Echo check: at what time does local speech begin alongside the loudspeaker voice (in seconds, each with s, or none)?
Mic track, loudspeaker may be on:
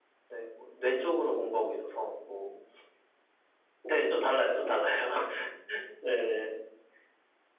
none